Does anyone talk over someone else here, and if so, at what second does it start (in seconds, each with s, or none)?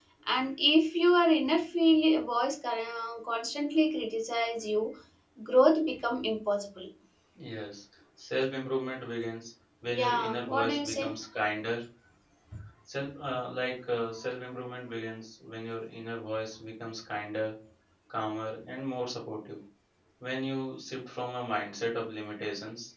9.9 s